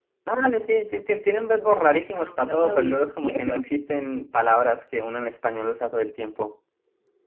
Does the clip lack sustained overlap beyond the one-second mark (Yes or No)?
No